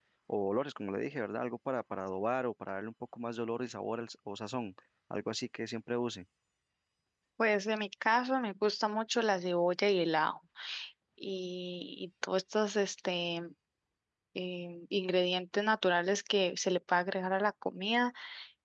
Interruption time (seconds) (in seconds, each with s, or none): none